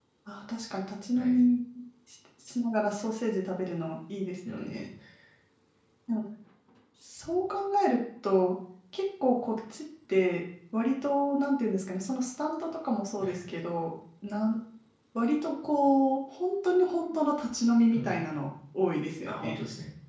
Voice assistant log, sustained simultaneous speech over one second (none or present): none